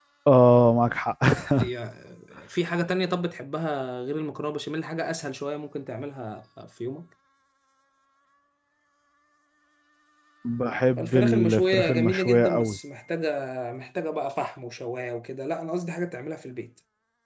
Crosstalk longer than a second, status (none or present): present